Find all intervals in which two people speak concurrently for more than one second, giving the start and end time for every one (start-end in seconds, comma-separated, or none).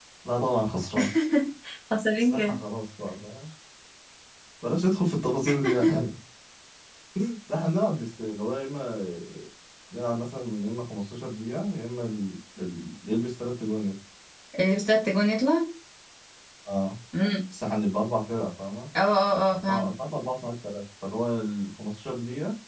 none